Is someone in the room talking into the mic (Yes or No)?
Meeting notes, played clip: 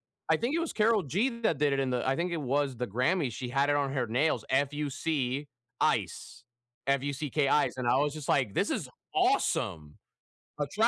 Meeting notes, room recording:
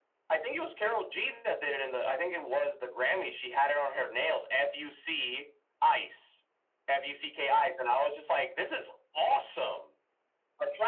No